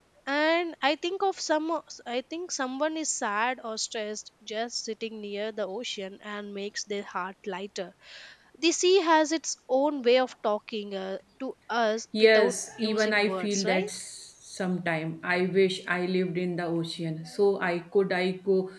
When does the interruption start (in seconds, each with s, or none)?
12.1 s